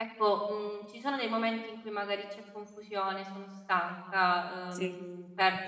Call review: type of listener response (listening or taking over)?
listening